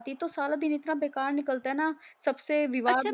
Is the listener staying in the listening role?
No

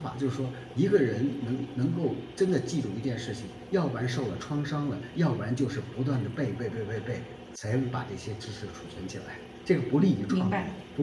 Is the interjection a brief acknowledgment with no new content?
No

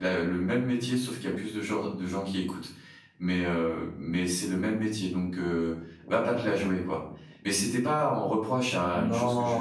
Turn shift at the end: Yes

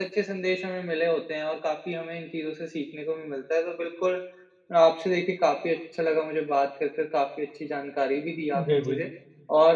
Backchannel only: Yes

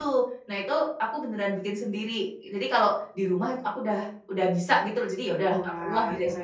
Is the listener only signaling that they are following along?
No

